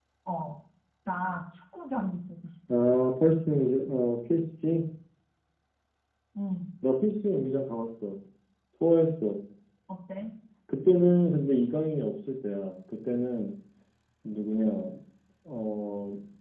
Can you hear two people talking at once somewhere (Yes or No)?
No